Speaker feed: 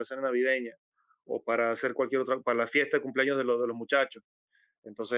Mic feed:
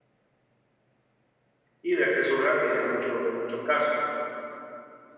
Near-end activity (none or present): present